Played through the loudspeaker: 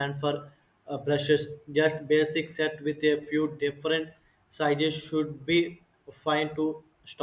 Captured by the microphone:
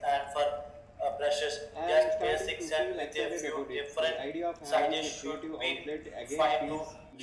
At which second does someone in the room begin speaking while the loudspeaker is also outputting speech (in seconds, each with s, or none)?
1.7 s